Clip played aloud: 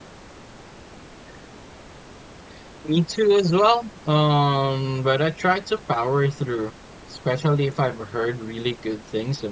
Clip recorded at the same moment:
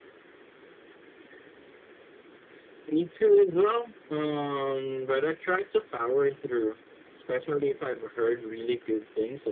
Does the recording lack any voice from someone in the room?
Yes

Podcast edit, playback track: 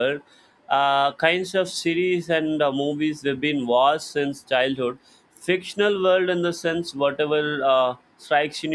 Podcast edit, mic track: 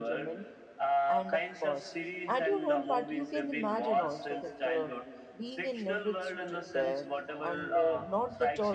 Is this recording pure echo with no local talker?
No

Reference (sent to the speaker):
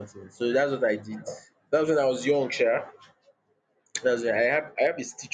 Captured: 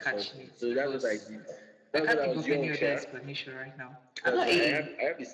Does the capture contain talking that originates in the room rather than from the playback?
Yes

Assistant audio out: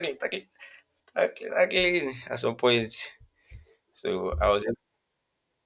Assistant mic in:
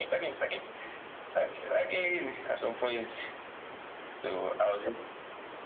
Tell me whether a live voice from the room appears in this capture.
No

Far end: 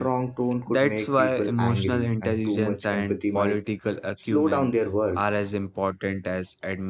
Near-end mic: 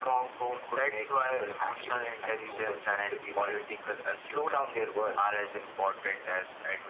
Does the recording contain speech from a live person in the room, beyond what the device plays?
No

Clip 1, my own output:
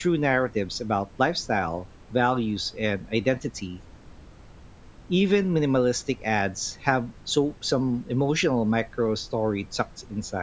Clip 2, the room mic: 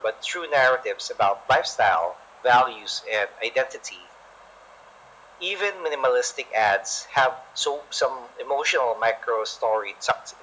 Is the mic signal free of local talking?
Yes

